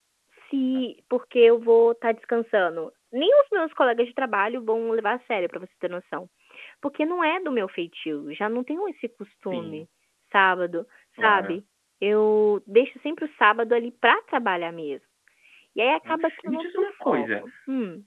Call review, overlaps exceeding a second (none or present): present